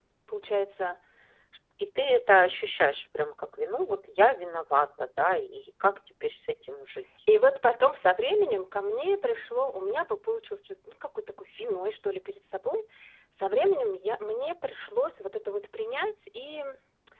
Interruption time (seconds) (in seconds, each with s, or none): none